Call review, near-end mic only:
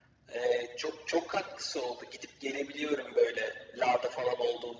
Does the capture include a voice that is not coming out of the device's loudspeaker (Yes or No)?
No